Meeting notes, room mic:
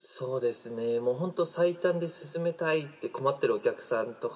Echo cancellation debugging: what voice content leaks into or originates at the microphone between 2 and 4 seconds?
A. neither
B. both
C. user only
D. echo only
D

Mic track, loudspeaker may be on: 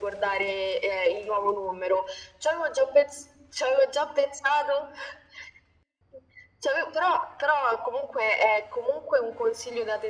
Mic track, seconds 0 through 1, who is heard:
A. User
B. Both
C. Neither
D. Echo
D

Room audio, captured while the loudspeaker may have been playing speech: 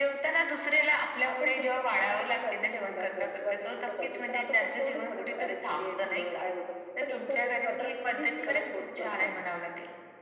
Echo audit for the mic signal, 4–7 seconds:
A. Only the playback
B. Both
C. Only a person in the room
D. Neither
A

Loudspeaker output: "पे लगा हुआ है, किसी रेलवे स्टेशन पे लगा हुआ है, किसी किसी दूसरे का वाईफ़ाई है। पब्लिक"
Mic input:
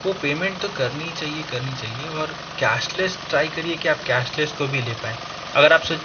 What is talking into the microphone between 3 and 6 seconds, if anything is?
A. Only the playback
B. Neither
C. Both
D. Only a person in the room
D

